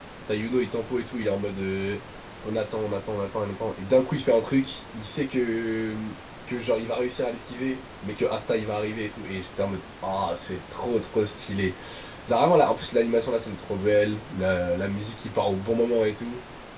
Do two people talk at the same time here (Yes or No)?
No